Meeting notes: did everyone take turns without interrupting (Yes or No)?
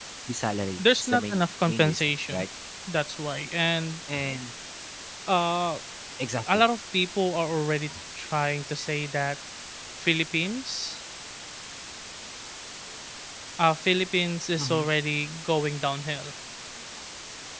No